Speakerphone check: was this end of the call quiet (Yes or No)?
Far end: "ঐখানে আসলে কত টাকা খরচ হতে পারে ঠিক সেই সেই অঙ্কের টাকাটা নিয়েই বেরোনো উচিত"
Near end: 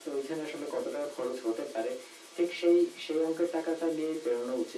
Yes